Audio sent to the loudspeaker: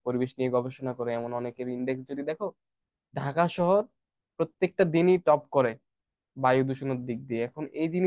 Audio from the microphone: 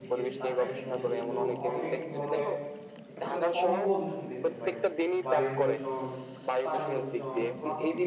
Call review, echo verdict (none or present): present